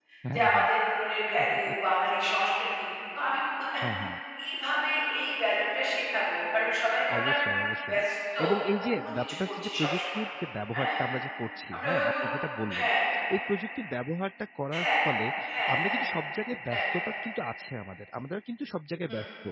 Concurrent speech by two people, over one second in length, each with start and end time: 8.9-10.2

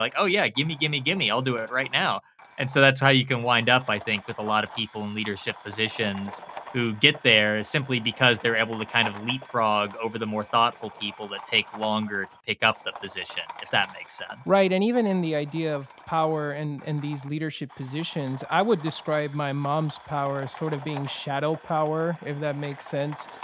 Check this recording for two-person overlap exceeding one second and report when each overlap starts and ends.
none

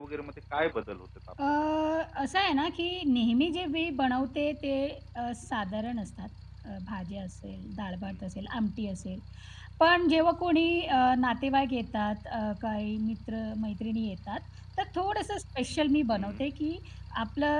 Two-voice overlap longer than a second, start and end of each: none

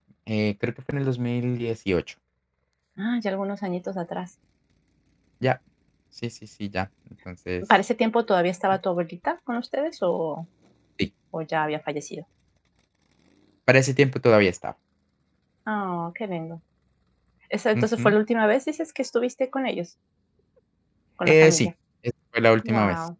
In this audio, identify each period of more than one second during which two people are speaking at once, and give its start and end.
none

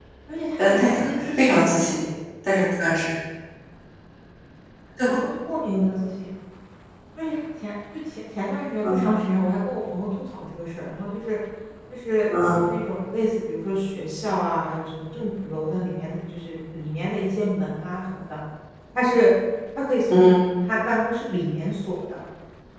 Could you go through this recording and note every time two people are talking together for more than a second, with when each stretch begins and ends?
0.6-2.1

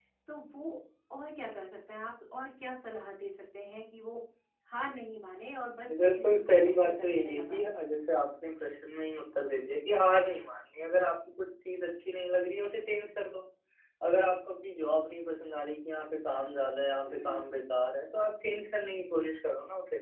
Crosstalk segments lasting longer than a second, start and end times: 5.9-7.6

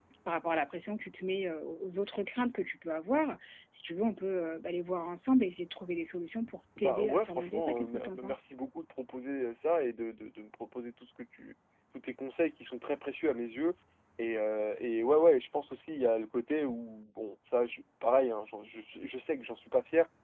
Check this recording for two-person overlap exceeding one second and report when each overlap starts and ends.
6.8-8.5

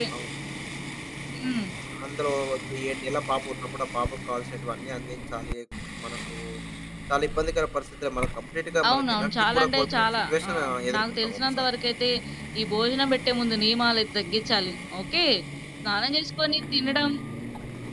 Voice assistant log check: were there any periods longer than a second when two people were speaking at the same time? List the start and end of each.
8.9-11.7

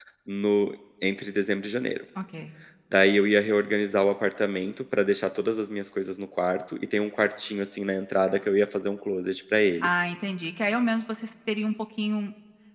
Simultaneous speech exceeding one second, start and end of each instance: none

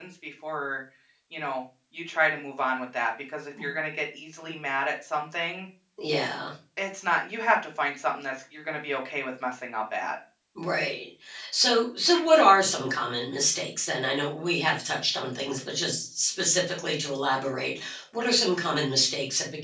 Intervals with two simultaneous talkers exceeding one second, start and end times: none

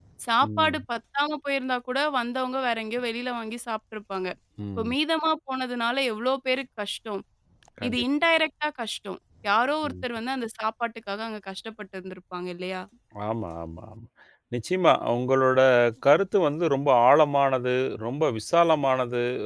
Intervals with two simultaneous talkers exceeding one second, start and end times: none

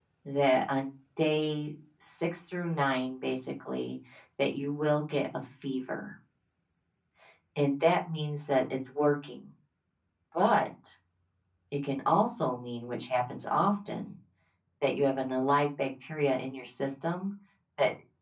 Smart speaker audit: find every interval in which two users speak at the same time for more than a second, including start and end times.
none

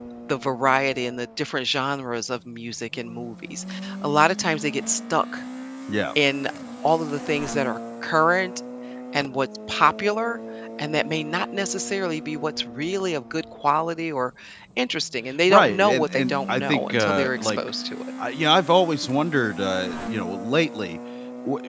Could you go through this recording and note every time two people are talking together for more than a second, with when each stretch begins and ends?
15.5-17.6

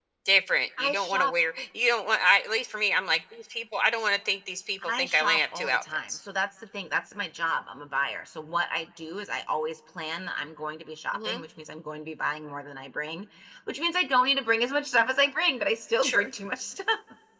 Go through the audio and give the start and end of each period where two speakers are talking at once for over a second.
4.8-6.1

